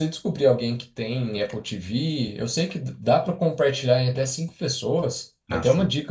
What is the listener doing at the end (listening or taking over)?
listening